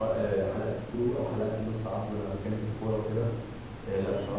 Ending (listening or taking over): taking over